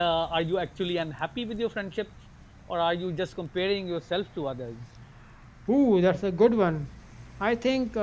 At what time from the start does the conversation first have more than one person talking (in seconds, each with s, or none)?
none